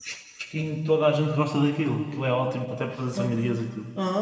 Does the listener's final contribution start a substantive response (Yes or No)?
Yes